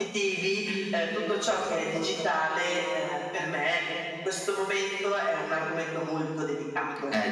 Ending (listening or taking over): taking over